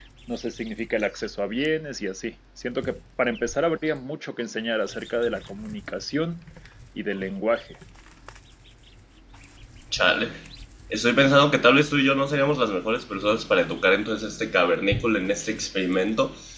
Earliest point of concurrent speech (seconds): none

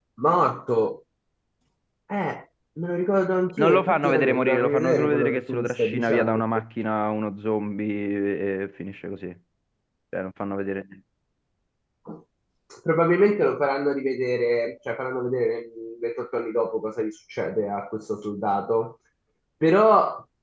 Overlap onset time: 3.6 s

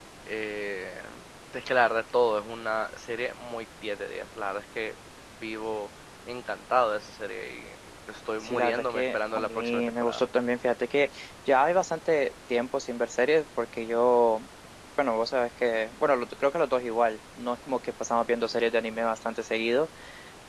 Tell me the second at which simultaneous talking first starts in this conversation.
8.4 s

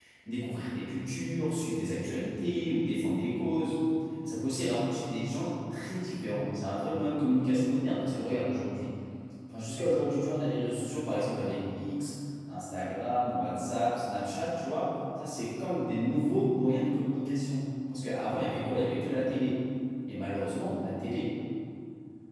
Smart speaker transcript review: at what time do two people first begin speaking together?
none

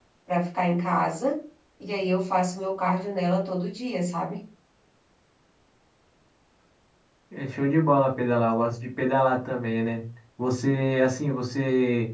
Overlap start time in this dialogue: none

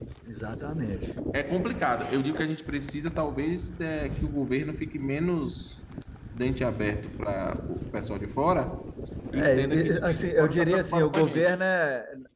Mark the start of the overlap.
9.4 s

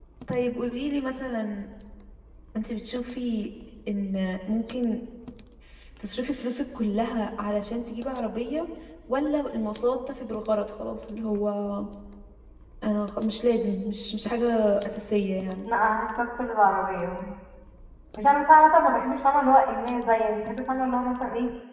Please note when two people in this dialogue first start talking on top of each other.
none

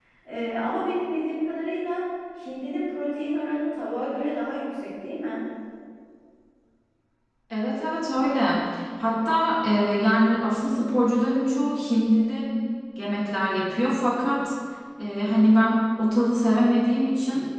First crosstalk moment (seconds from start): none

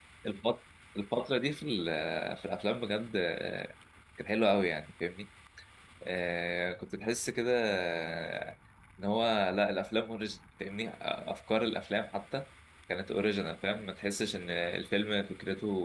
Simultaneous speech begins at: none

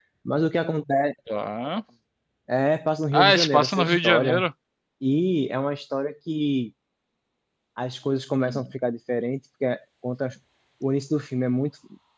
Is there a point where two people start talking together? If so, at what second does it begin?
3.1 s

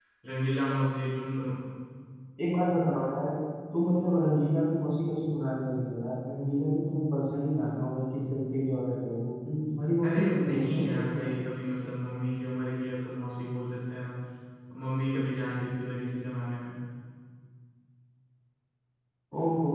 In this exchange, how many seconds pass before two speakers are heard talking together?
10.0 s

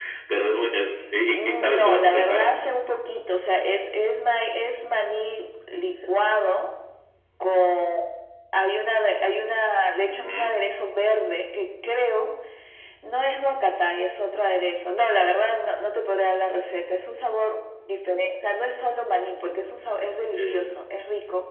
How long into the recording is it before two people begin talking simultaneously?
1.2 s

